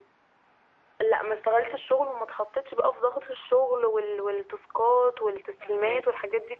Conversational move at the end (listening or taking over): listening